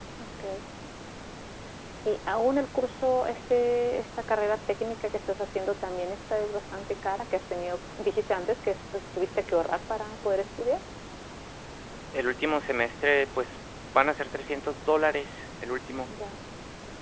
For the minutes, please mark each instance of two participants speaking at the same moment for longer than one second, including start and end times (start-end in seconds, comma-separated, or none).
none